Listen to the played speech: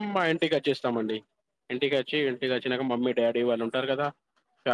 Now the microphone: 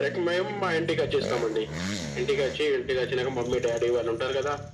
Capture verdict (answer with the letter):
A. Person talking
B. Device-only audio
B